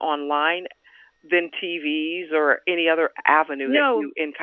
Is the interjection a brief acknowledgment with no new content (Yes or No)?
No